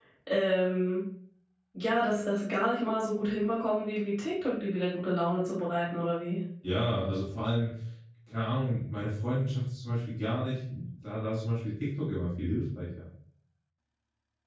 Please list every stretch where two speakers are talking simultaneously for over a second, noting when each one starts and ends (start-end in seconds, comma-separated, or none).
none